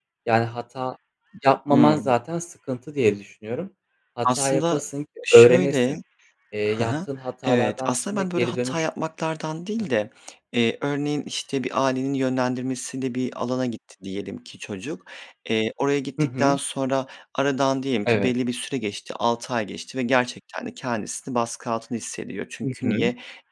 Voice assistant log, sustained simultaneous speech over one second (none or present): present